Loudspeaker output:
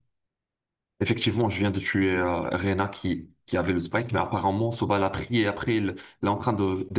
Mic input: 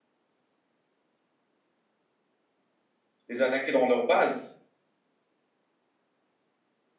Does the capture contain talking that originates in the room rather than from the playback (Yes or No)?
Yes